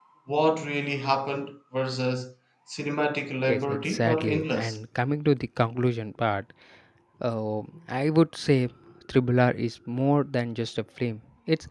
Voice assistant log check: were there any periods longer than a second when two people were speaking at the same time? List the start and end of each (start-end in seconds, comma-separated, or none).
3.5-4.8